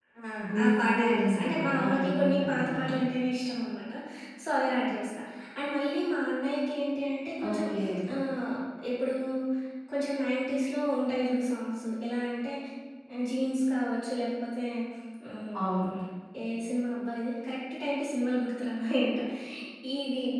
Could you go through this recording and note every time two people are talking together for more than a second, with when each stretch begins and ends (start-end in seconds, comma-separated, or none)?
0.6-2.9